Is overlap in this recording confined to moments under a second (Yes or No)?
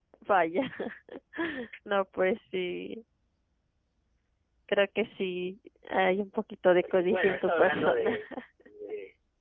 No